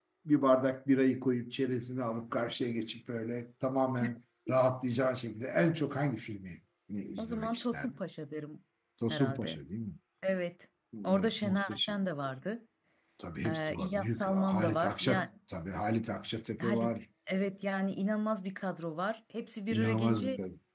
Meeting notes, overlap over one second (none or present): present